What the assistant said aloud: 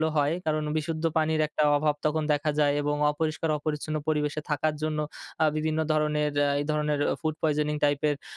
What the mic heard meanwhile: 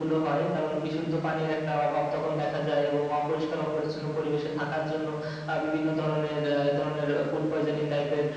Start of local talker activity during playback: none

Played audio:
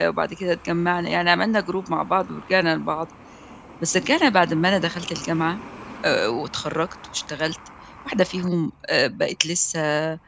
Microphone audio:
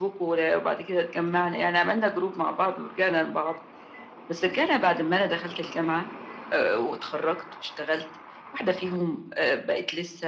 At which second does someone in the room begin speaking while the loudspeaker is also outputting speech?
none

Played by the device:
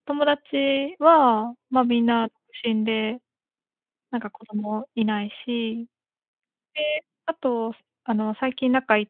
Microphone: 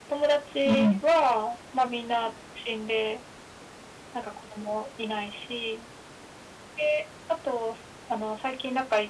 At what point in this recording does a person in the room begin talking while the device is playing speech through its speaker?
0.7 s

